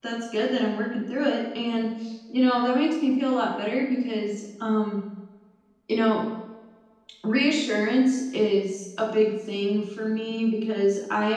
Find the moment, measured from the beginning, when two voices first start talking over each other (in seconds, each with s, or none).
none